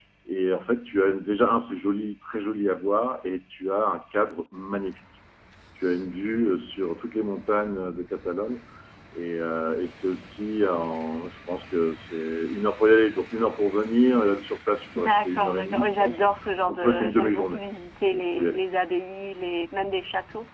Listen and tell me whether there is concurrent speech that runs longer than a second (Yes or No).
Yes